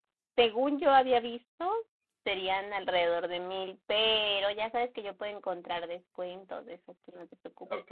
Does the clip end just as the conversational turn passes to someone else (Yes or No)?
Yes